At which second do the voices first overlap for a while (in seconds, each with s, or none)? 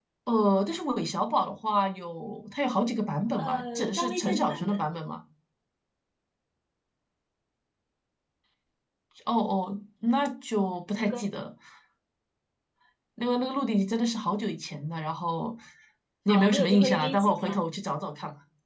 3.4 s